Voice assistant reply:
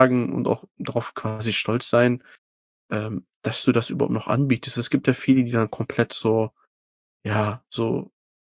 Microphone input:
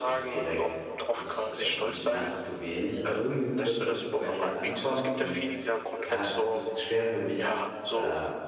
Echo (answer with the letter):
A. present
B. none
A